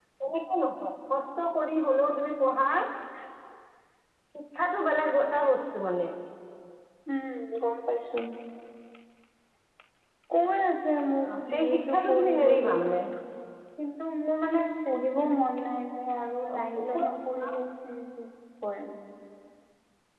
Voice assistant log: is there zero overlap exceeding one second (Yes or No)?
No